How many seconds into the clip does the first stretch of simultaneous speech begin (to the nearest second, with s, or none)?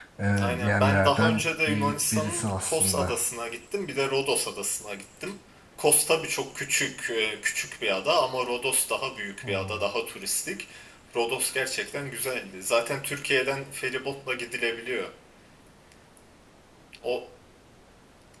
1 s